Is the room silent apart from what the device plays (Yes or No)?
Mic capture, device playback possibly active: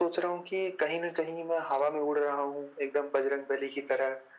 Yes